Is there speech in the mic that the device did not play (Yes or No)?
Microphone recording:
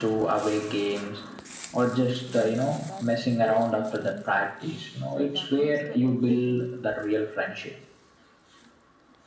Yes